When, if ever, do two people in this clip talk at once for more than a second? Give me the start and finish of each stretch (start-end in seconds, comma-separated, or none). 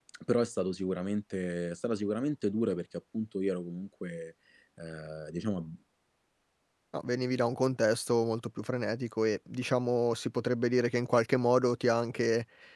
none